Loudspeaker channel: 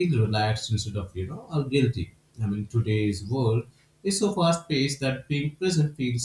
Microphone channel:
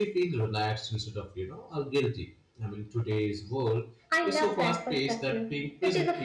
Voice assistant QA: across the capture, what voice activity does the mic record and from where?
both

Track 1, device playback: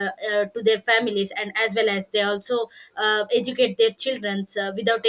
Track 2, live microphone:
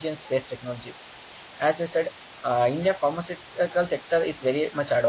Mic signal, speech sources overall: user only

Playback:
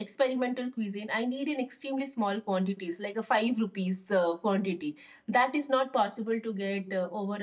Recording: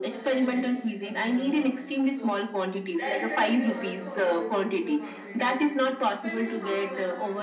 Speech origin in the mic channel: both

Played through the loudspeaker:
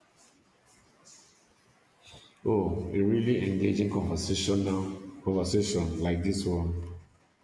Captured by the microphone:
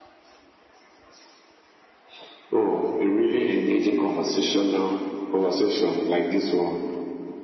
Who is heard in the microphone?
echo only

